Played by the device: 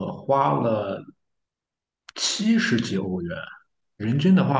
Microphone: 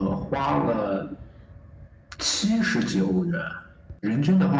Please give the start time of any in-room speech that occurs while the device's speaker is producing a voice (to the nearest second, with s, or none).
none